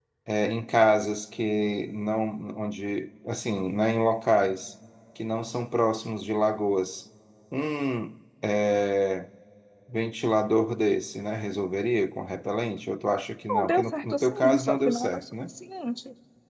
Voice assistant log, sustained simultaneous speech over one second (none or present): present